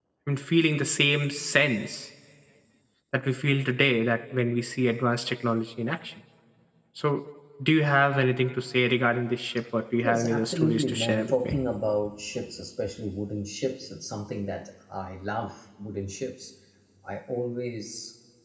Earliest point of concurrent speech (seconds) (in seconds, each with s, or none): 10.0 s